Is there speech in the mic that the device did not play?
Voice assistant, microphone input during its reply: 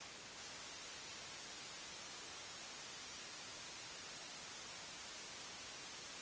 No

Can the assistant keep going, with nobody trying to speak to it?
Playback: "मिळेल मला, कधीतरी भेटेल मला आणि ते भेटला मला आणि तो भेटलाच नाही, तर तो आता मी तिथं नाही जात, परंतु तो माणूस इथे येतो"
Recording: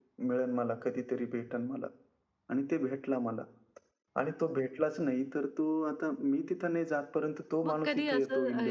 No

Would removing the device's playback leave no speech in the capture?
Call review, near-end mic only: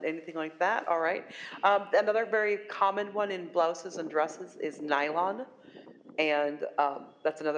Yes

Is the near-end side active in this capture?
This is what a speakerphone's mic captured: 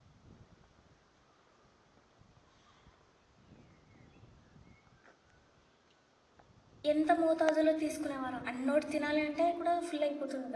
Yes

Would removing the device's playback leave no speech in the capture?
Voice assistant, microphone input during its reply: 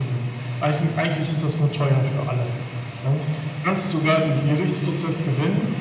Yes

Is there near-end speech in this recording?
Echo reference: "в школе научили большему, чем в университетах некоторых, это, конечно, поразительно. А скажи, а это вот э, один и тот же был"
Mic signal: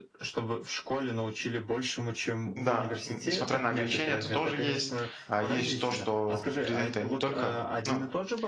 Yes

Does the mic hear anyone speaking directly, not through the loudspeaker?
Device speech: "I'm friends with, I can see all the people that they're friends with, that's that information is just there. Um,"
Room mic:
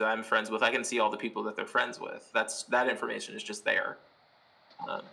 No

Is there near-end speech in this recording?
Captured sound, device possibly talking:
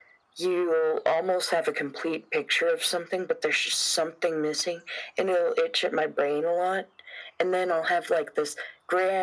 No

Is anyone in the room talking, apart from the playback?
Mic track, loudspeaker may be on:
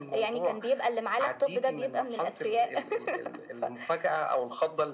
No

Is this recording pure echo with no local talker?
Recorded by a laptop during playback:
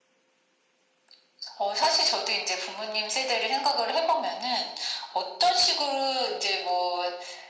Yes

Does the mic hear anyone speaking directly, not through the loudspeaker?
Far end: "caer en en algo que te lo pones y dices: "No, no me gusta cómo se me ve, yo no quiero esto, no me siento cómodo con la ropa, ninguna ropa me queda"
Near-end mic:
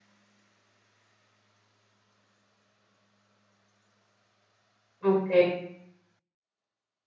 Yes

